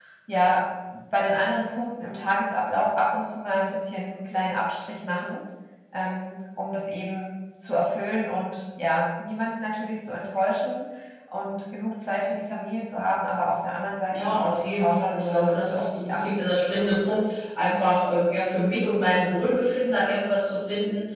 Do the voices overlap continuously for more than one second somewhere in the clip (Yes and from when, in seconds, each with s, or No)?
Yes, from 14.1 s